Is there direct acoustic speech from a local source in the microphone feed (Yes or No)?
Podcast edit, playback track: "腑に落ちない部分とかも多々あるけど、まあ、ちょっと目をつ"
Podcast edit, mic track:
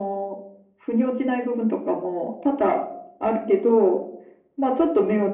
No